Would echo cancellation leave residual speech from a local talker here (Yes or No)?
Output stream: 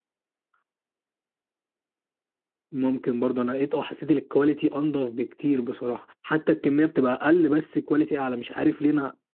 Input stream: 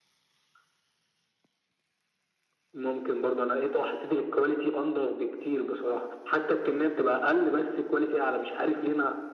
No